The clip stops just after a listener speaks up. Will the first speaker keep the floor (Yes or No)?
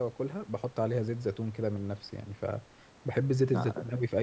Yes